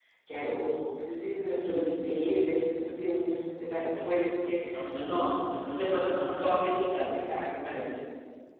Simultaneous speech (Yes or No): Yes